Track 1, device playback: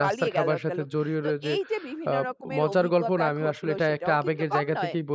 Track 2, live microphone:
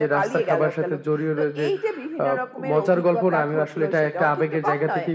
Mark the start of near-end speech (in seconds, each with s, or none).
none